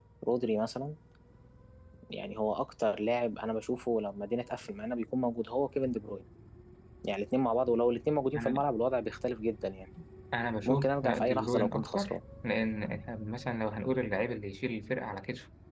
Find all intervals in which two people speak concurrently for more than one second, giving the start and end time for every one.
10.7-12.2

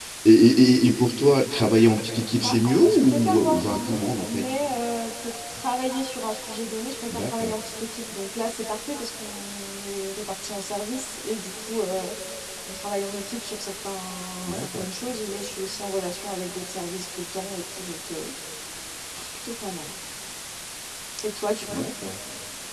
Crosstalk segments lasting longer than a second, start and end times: 2.4-4.5

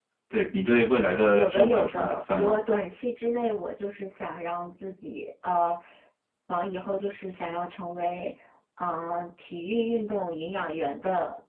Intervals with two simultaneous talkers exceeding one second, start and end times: 1.3-2.6

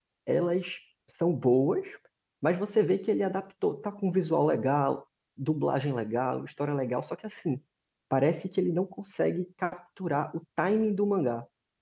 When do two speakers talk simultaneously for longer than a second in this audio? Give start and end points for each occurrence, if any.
none

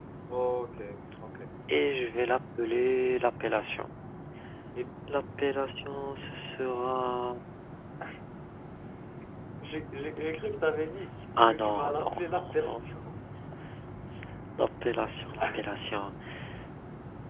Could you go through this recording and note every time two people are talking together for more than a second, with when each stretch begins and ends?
11.5-13.2

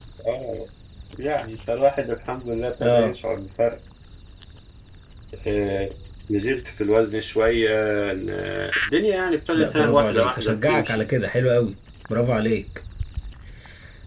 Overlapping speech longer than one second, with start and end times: 9.5-11.0

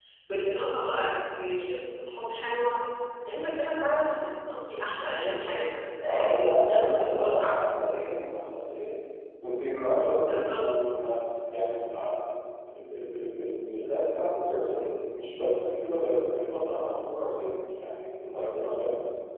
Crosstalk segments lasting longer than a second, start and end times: 6.0-7.6

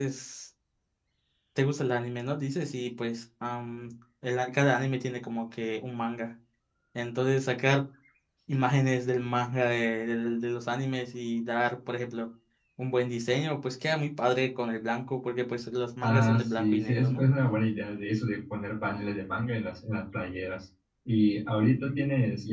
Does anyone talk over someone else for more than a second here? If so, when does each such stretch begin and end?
16.0-17.2

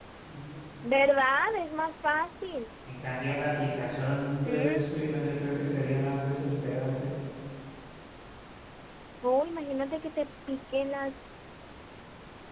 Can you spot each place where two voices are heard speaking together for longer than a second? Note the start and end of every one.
none

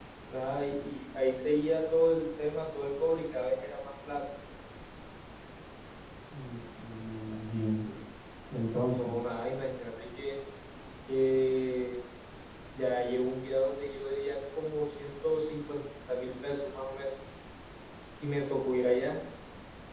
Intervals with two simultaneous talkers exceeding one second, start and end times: none

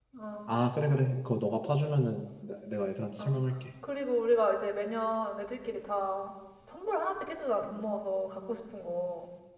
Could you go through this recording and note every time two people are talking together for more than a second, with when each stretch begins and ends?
none

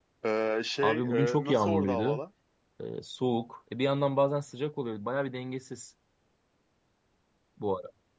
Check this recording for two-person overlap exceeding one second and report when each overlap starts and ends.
0.8-2.2

